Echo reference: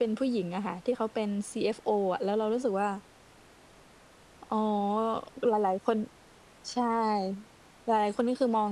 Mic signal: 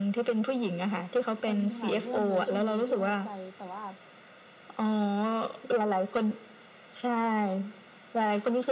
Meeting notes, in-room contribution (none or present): present